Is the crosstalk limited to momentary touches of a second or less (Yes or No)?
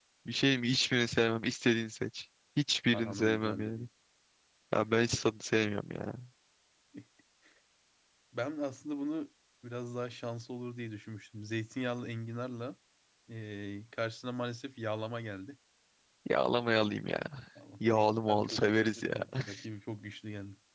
No